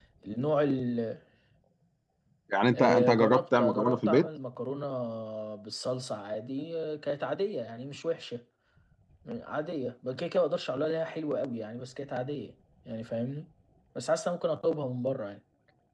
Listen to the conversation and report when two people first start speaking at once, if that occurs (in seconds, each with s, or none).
2.8 s